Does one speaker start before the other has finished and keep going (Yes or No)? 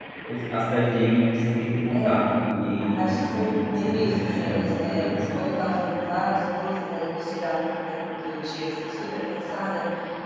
Yes